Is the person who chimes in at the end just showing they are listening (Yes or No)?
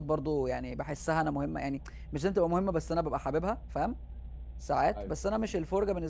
Yes